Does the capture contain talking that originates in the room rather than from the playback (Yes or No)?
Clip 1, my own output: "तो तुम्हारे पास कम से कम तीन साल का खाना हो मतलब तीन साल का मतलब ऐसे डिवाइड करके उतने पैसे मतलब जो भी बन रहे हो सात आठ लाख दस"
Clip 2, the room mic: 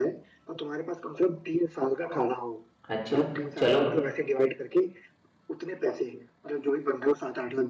Yes